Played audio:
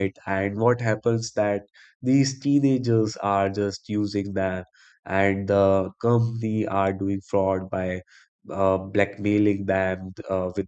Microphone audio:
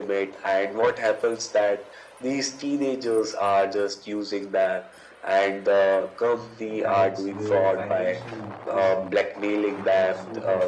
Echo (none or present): present